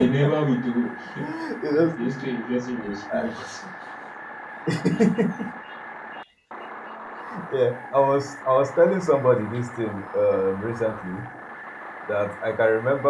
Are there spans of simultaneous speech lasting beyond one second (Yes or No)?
No